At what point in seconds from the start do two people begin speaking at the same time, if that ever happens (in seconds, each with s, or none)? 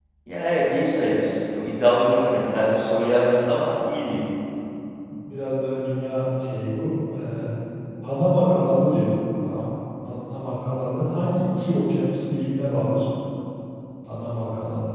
none